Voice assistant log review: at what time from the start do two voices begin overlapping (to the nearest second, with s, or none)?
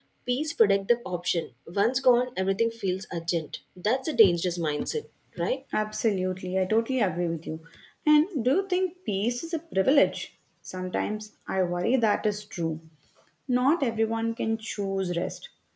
none